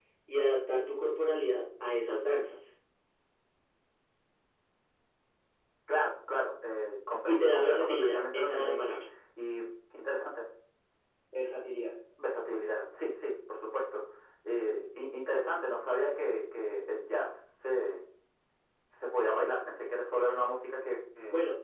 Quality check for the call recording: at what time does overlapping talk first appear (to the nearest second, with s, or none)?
7 s